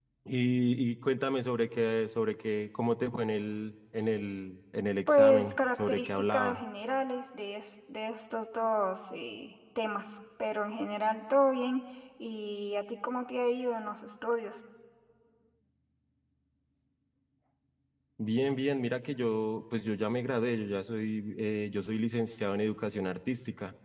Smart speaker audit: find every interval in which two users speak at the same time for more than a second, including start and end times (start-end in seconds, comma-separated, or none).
5.1-6.6